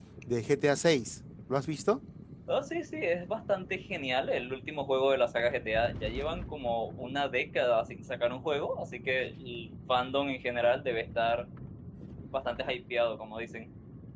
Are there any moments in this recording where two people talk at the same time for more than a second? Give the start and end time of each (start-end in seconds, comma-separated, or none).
none